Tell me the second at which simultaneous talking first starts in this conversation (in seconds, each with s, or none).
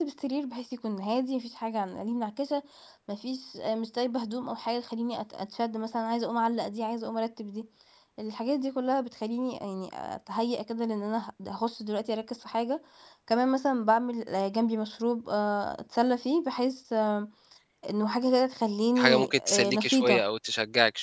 19.0 s